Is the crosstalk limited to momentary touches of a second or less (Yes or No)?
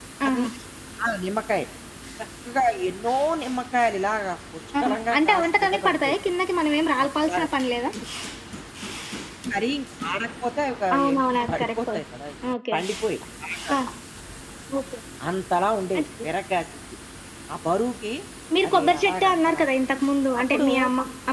No